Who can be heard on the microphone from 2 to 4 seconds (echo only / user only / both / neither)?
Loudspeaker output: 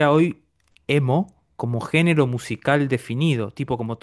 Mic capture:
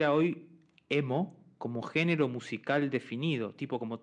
echo only